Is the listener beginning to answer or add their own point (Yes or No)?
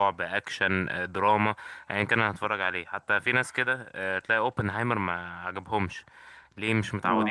No